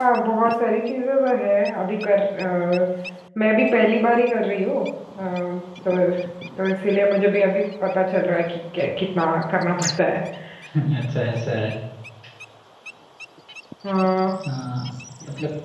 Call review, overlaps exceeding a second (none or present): none